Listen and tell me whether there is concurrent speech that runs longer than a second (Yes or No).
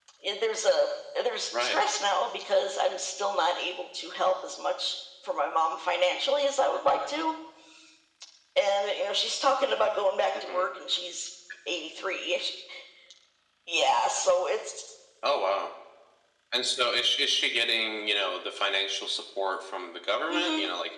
No